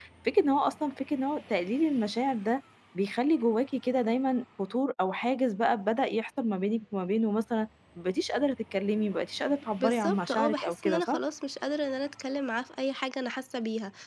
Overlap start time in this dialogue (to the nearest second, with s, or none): 10 s